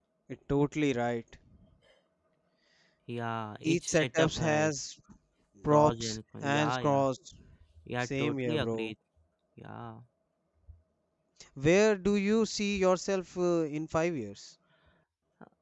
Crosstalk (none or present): present